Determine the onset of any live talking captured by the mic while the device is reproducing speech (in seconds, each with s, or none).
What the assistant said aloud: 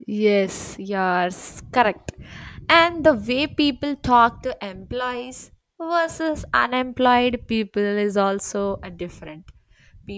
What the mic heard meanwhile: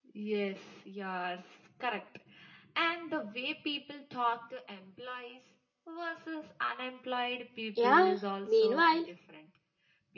7.7 s